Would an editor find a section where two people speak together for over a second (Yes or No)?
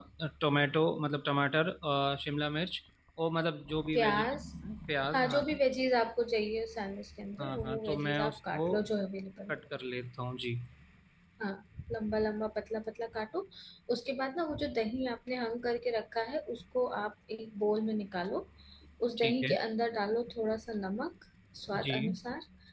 Yes